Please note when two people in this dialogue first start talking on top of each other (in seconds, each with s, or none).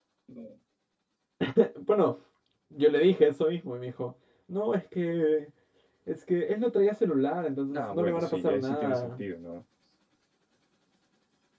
7.7 s